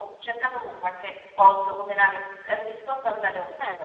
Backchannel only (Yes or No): Yes